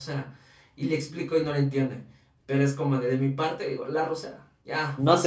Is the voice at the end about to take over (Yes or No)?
Yes